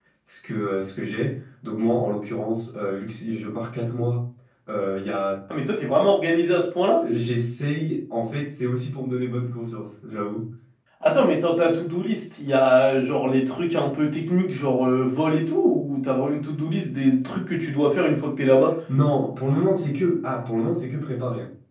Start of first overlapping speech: none

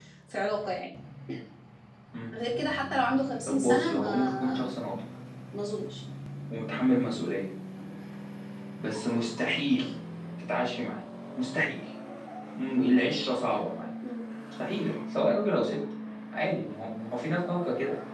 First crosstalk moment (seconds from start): 3.5 s

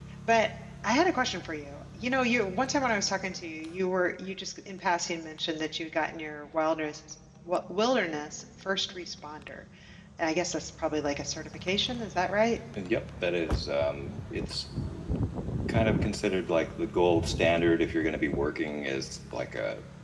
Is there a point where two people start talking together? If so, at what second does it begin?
none

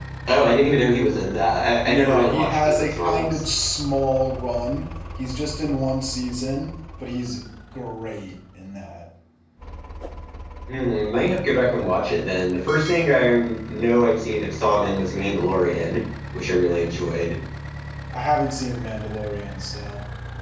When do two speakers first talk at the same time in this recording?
1.9 s

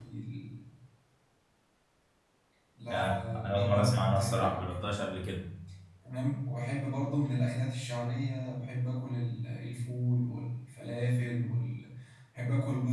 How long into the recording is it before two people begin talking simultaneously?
2.9 s

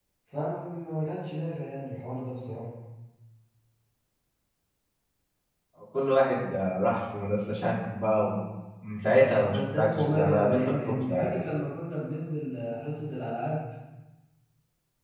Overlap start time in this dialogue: 9.4 s

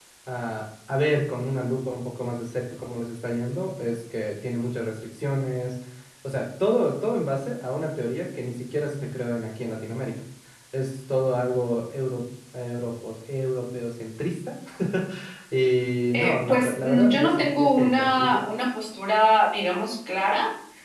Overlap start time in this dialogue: 16.1 s

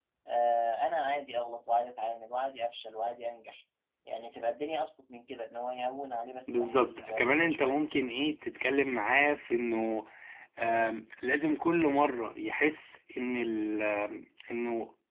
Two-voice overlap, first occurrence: 6.5 s

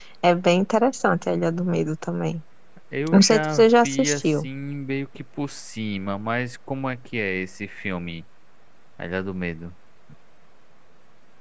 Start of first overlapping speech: 3.1 s

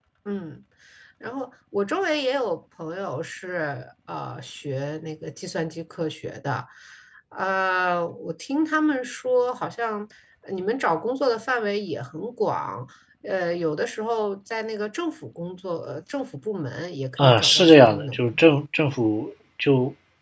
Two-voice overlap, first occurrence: 17.2 s

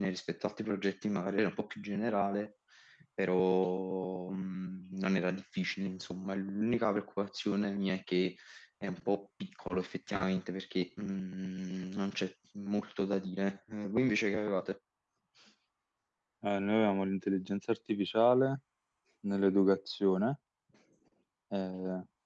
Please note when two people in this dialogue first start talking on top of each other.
none

